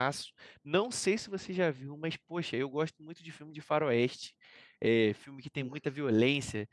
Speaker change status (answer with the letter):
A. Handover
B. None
B